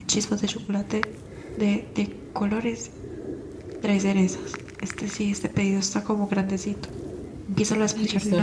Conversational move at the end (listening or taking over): taking over